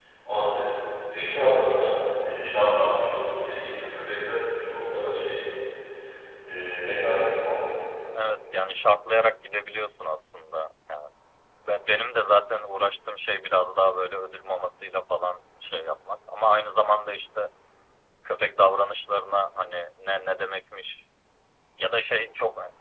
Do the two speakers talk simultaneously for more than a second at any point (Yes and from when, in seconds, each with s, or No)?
No